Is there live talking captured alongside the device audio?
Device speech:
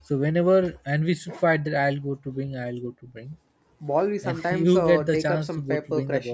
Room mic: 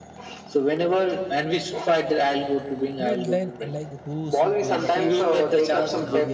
Yes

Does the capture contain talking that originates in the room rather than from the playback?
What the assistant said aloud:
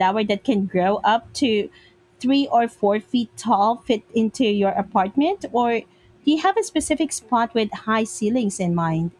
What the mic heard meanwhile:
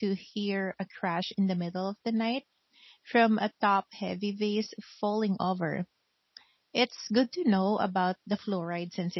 Yes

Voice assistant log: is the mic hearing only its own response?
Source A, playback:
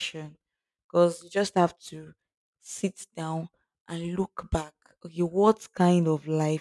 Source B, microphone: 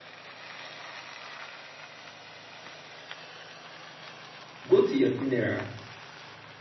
No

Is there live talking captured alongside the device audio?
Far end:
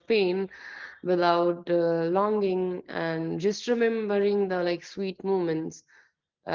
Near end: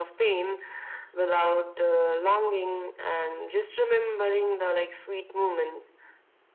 No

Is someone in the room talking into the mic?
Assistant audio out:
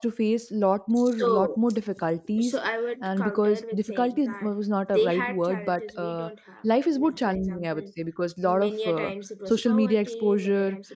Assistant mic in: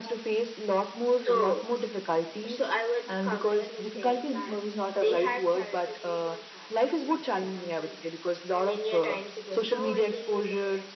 No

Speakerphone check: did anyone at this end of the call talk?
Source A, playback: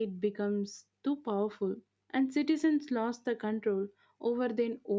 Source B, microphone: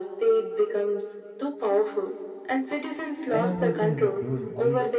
Yes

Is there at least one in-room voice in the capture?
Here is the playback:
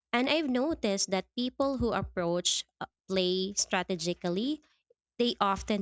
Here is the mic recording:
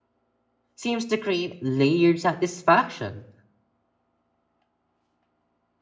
Yes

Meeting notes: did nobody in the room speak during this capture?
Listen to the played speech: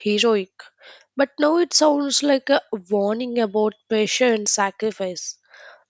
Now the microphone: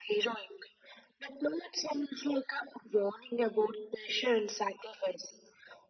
Yes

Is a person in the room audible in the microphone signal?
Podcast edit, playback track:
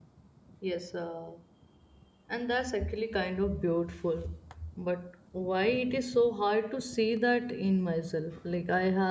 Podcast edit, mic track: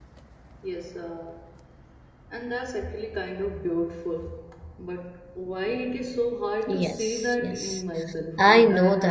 Yes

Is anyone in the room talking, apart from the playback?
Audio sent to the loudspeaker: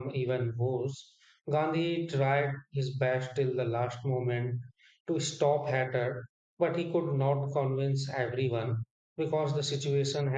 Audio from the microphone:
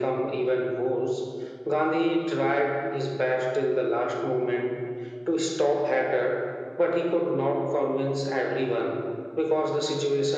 No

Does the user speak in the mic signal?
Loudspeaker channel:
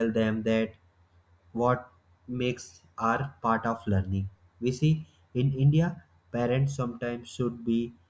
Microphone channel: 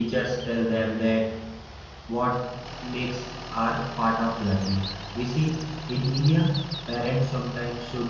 No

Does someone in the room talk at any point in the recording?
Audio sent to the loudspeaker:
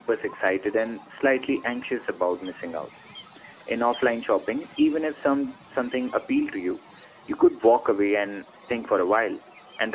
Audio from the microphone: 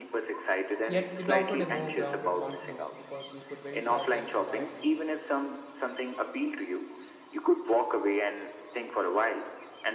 Yes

